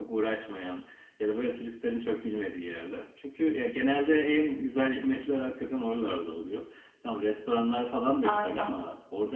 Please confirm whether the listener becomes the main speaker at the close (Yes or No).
No